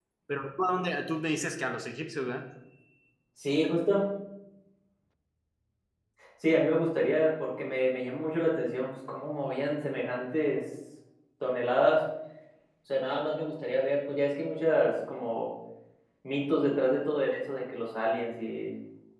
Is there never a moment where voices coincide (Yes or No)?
Yes